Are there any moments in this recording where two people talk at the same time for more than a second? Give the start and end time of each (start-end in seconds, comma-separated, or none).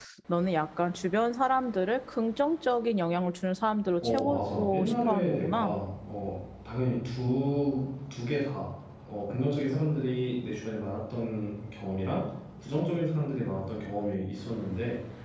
4.0-5.7